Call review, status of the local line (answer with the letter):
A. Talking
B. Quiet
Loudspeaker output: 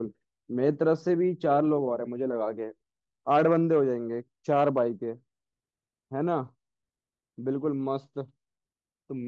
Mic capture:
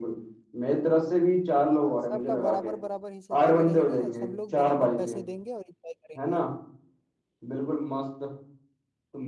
A